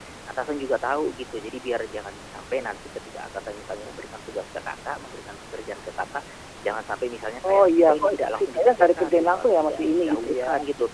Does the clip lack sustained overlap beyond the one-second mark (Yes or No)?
No